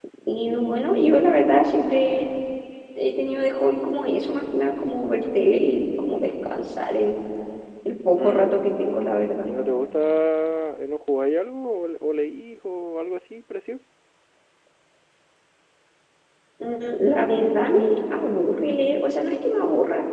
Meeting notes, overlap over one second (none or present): none